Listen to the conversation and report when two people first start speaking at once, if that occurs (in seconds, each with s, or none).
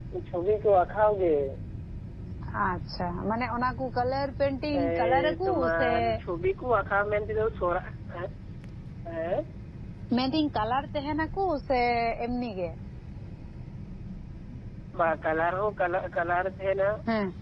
4.7 s